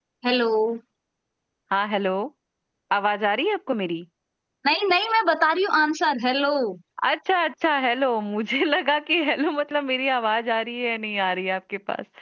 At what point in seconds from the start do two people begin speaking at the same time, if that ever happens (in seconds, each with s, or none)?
none